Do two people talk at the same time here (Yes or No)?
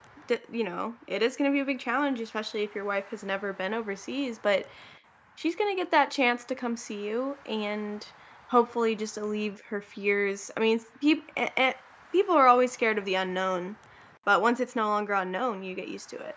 No